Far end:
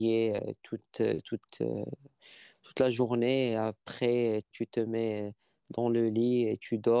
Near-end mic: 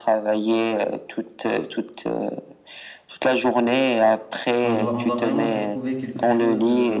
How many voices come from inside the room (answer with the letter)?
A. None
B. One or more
B